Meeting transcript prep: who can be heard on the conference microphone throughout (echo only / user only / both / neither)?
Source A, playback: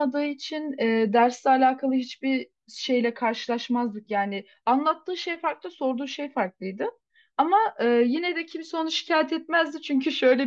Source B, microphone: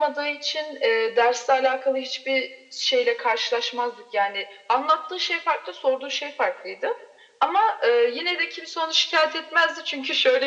echo only